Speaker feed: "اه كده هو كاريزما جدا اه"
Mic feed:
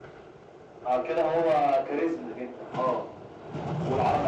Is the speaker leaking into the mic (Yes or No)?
Yes